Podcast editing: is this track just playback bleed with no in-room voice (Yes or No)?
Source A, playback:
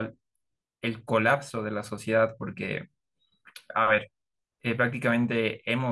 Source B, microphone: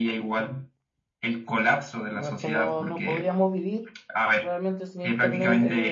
No